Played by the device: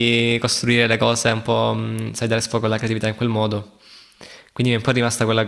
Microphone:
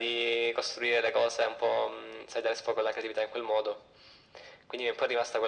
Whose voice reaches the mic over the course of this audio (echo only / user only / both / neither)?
echo only